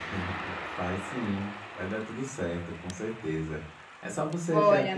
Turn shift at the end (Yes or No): Yes